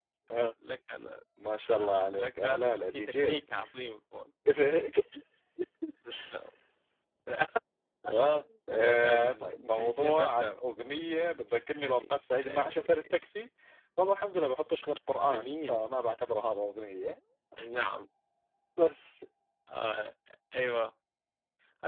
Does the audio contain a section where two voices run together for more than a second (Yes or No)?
Yes